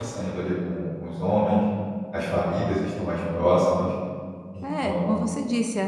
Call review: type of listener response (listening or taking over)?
taking over